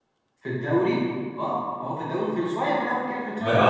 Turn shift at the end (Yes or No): Yes